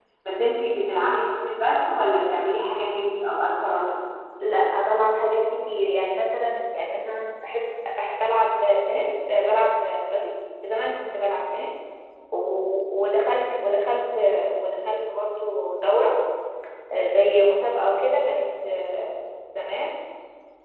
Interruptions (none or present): none